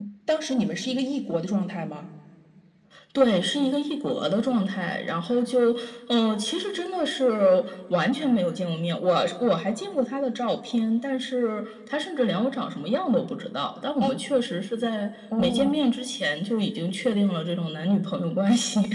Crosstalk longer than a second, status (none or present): none